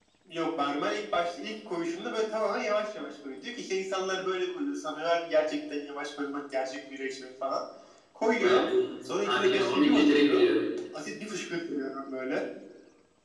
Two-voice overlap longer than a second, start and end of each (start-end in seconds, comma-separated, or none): 9.2-10.4